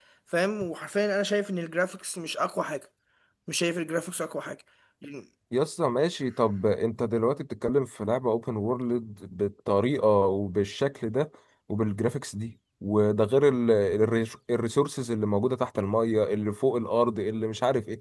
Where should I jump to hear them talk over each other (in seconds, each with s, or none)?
none